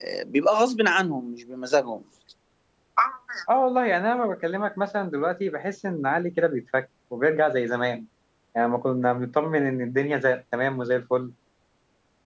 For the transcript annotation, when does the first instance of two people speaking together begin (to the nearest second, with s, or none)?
none